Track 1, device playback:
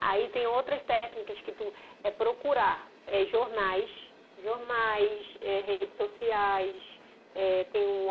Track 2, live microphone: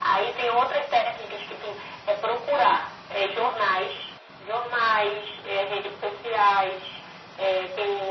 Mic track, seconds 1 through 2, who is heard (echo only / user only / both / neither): echo only